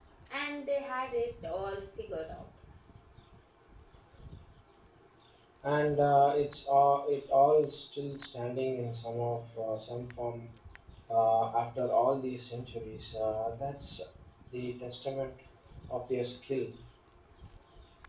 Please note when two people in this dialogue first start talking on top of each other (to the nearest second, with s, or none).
none